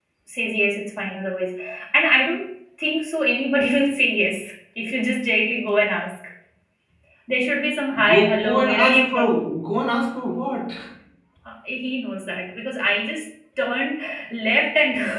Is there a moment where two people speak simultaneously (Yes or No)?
Yes